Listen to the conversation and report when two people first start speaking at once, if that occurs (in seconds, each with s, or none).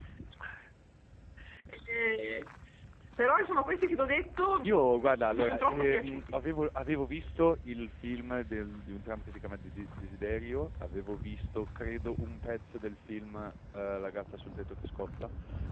4.6 s